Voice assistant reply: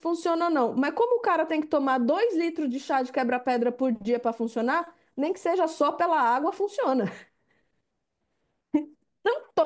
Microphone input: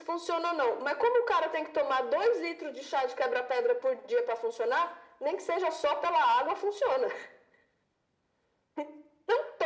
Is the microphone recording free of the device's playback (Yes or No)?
No